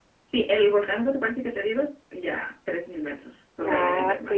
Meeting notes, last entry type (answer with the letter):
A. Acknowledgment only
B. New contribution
B